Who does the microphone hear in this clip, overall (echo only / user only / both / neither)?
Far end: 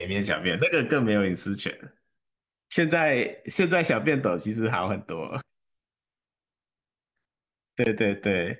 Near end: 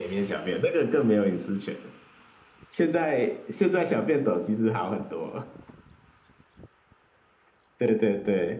echo only